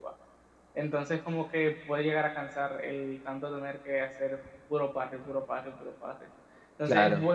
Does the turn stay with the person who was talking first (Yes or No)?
Yes